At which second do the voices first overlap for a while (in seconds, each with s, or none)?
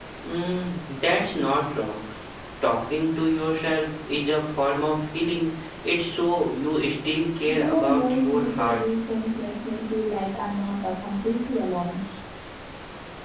7.5 s